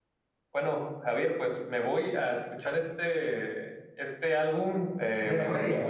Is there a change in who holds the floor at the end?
No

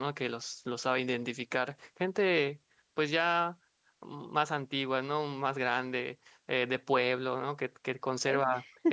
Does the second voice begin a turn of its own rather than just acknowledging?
No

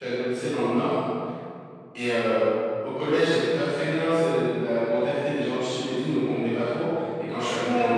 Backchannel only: Yes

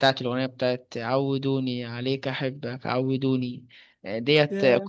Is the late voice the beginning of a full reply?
No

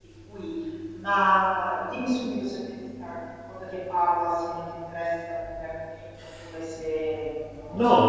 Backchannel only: No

